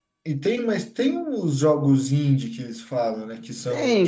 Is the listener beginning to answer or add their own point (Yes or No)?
Yes